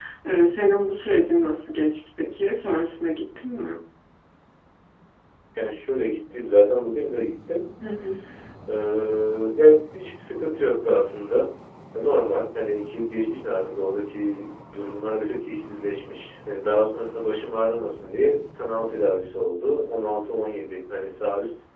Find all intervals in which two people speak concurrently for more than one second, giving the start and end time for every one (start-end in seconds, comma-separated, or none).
none